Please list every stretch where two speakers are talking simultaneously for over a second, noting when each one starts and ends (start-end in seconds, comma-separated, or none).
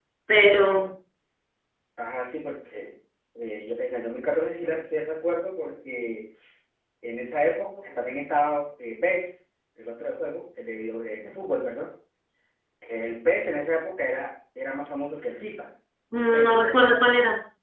none